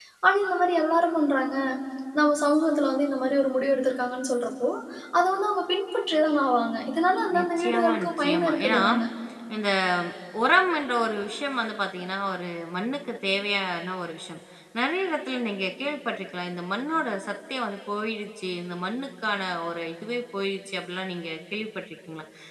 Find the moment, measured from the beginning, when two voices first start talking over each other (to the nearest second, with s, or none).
7 s